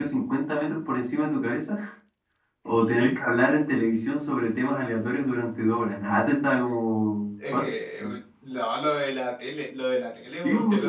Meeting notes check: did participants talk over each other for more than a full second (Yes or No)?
No